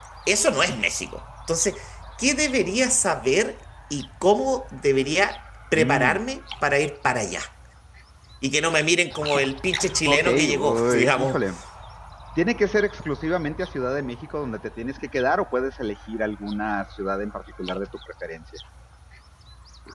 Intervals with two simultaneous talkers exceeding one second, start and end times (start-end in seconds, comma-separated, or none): 10.0-11.4